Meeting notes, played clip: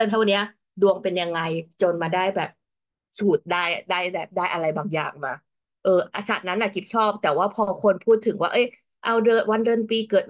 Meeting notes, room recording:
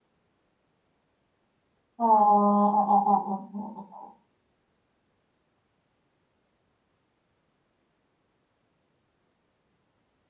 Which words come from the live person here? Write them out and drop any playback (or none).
อ๋ออ๋ออ๋ออ๋ออ๋ออ๋อ